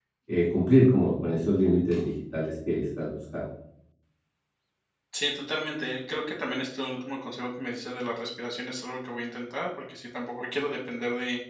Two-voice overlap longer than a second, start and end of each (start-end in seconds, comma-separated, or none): none